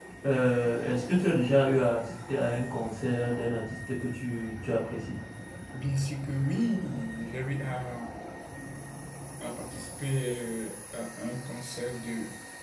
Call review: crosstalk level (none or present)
none